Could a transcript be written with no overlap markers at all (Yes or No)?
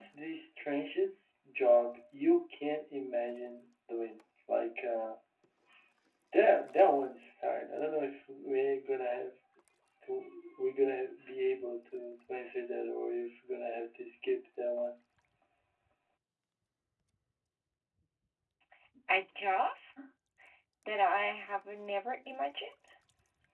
Yes